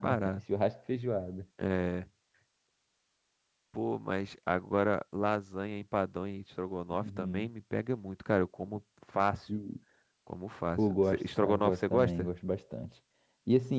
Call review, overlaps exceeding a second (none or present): present